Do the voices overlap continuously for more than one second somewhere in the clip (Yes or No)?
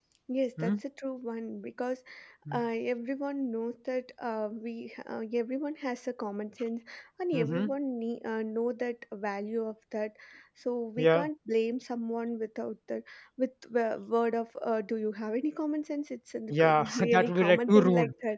Yes